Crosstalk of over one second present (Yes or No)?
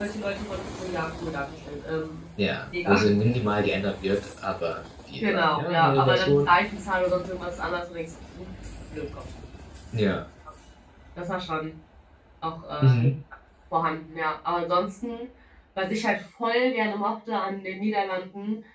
Yes